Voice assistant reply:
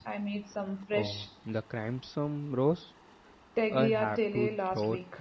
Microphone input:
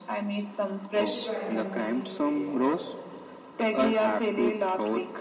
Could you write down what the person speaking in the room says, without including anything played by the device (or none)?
It's surprisingly straightforward.